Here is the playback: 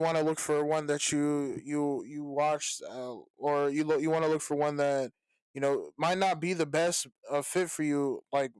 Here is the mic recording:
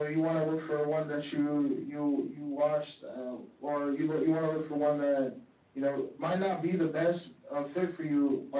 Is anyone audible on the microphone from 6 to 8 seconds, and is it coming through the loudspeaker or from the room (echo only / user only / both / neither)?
echo only